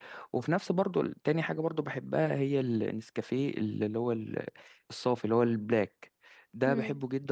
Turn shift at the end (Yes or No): No